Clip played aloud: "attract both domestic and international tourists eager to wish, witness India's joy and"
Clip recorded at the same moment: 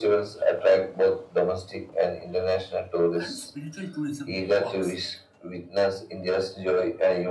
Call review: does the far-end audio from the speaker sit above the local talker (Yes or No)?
Yes